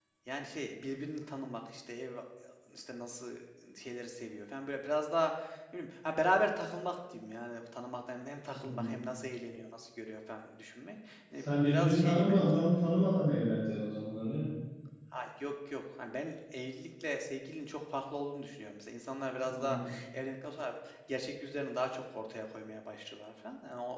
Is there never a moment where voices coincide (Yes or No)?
No